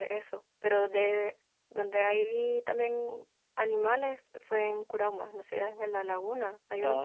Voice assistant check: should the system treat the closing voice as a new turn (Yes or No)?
Yes